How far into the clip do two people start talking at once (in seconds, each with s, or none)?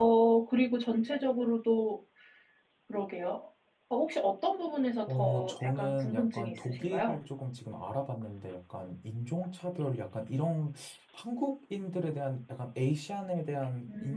5.1 s